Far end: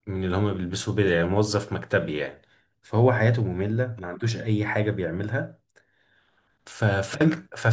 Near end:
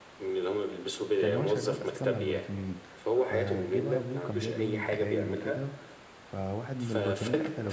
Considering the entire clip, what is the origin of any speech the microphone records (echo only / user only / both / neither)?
both